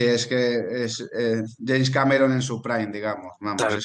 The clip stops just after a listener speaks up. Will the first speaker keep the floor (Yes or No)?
Yes